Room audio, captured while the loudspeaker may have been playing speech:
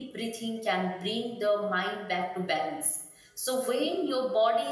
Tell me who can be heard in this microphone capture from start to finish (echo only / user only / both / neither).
user only